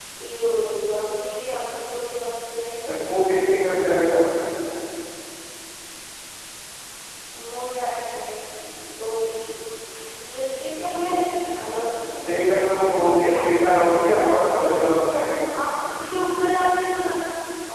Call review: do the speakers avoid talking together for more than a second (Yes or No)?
No